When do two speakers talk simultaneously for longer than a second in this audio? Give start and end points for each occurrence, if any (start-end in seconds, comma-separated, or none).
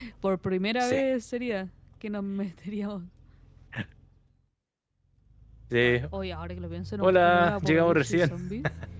7.0-8.3